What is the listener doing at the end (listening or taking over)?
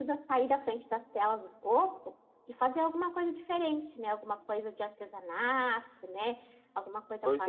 listening